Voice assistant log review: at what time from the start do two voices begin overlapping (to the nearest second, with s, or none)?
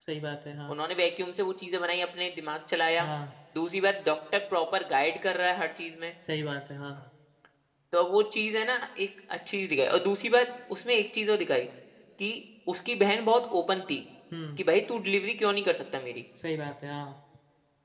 none